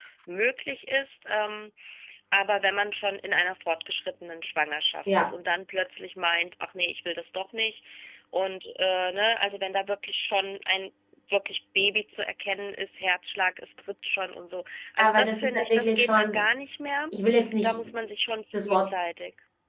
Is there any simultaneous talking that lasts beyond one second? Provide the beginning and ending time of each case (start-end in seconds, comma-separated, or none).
15.0-16.4